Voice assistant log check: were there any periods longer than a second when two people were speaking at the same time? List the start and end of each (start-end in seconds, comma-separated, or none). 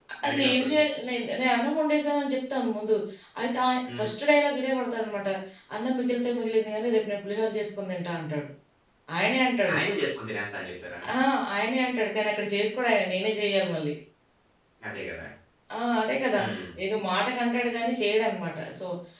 none